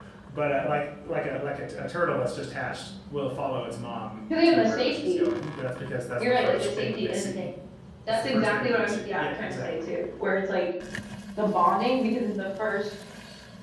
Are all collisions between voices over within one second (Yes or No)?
No